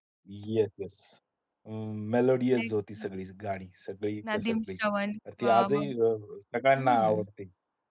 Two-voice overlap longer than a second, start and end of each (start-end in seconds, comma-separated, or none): none